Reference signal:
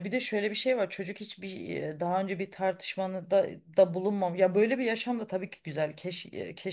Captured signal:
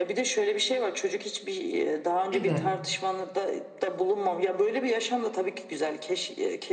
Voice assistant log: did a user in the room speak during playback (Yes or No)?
Yes